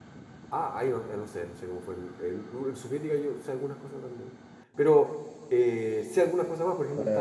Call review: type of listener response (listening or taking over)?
taking over